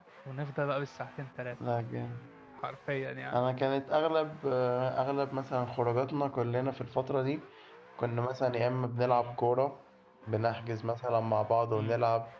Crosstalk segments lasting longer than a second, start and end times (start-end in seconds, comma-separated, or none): none